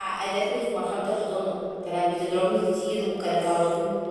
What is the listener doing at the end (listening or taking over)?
listening